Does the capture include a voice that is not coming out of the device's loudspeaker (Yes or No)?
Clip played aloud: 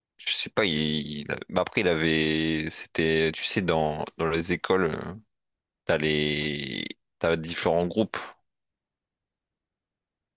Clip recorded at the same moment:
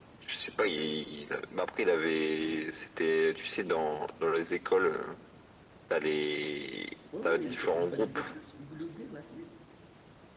Yes